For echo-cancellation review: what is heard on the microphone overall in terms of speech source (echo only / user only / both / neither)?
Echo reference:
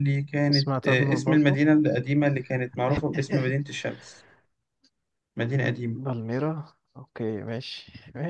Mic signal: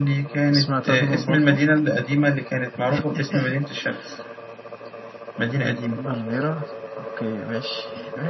echo only